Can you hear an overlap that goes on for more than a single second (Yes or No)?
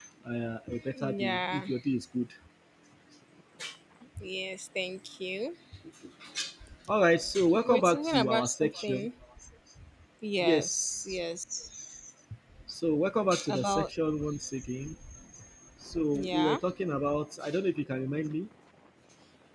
Yes